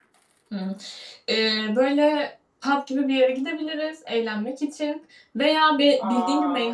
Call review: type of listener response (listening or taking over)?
listening